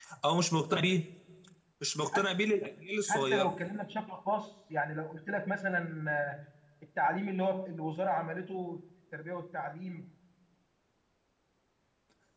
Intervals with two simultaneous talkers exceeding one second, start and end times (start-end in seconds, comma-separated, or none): none